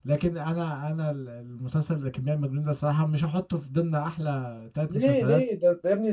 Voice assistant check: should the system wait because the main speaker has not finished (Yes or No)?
No